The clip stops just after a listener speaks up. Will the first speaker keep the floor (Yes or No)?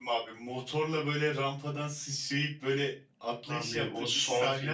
No